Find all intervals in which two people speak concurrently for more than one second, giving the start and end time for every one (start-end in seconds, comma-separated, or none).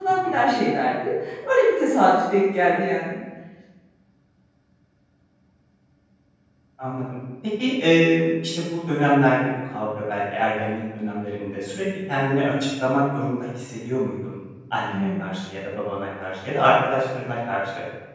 none